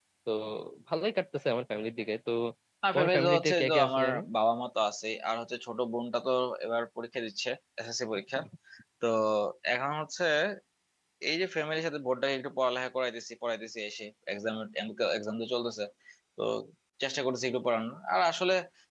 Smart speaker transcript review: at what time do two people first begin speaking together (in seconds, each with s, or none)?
2.9 s